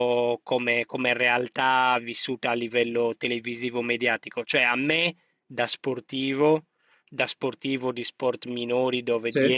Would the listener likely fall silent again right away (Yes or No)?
Yes